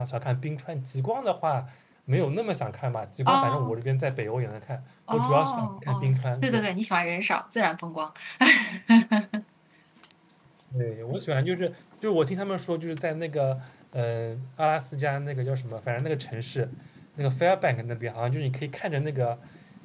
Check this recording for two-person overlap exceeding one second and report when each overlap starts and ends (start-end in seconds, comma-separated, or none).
5.1-6.7